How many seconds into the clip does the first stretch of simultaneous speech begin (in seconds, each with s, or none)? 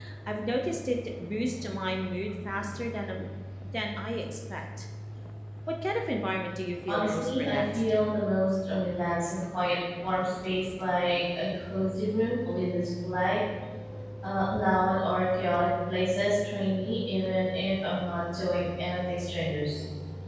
6.9 s